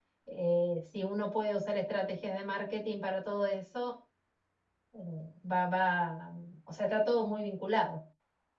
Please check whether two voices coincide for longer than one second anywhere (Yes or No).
No